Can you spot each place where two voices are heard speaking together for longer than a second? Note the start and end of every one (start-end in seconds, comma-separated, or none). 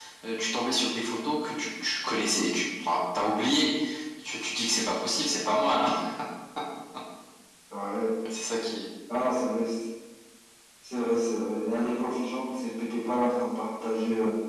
none